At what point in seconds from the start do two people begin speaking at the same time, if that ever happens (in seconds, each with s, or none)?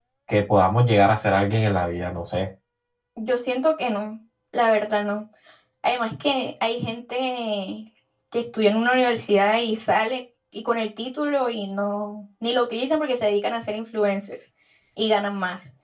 none